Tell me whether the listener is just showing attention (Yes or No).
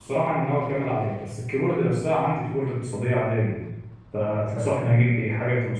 Yes